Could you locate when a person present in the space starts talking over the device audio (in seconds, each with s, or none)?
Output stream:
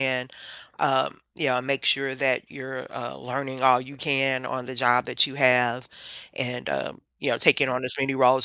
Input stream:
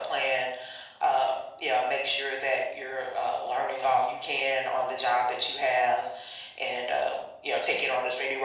none